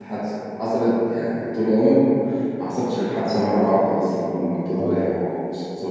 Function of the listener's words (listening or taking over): listening